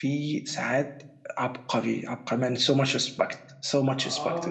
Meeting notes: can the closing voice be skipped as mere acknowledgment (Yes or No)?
No